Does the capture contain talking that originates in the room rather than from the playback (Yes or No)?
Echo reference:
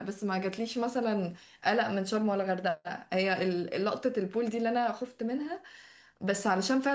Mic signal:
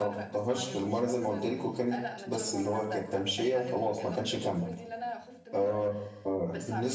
Yes